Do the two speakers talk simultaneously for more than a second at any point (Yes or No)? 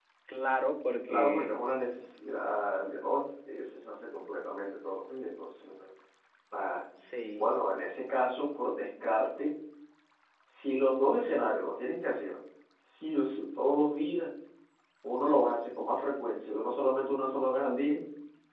No